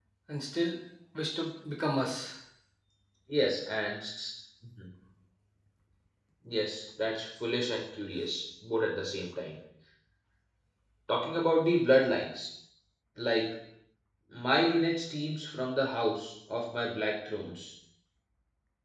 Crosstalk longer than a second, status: none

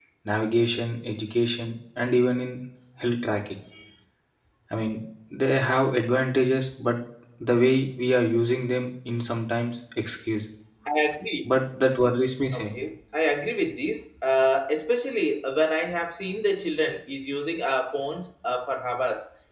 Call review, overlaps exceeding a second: none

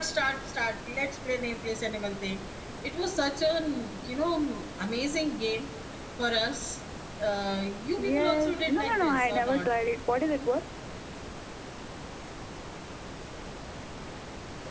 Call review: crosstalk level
present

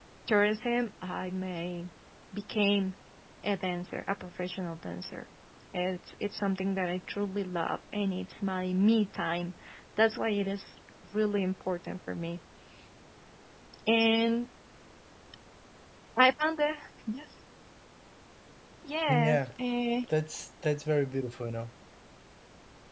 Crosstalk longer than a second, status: none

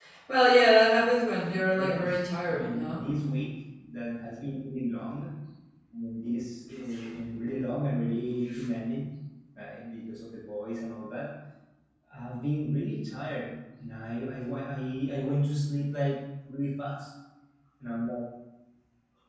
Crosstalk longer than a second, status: present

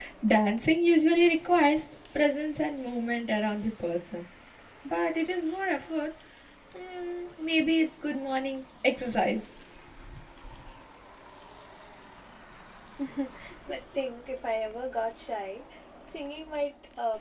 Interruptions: none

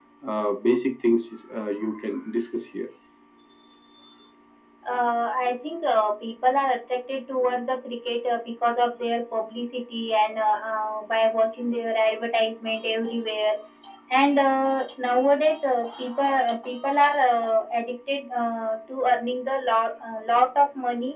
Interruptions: none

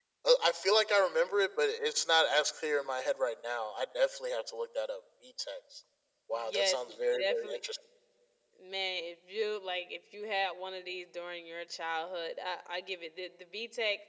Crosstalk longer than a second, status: present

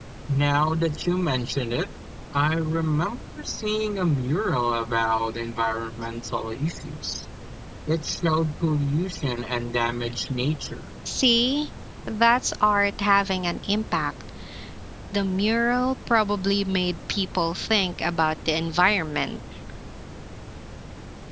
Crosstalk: none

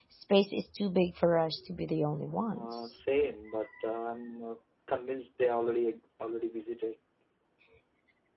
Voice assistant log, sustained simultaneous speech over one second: none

